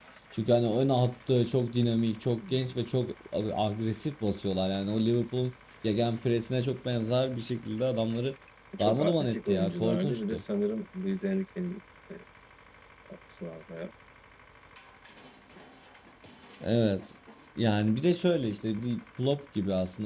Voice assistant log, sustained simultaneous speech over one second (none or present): present